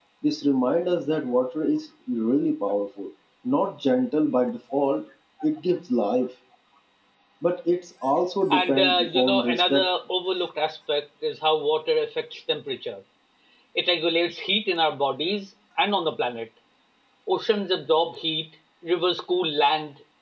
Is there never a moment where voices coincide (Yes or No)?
No